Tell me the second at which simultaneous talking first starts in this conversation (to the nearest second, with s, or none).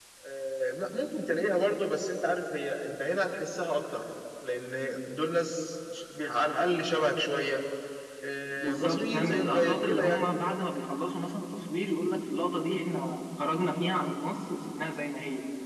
9 s